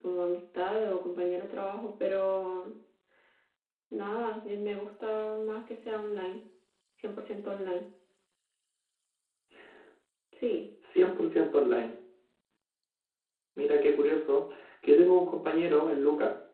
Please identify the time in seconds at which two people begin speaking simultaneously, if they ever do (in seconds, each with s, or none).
none